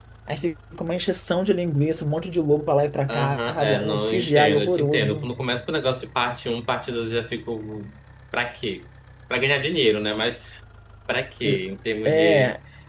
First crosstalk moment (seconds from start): 3.1 s

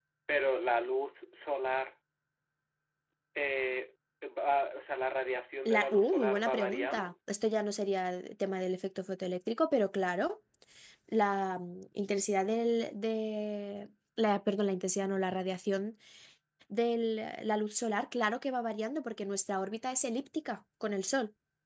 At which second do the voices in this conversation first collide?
5.7 s

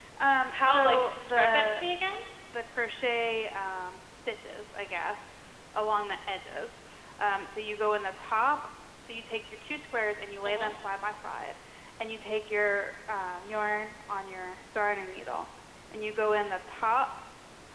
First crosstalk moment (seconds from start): 0.5 s

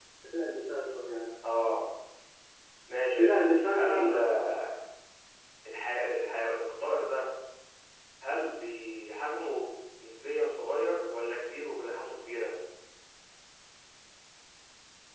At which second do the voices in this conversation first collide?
3.2 s

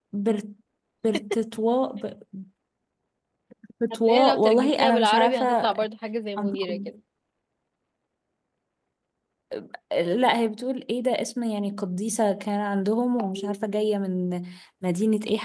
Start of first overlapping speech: 4.0 s

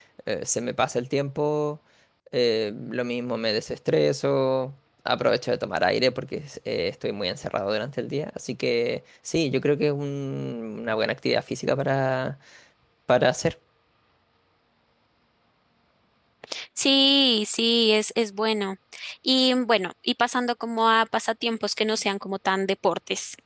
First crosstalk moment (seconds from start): none

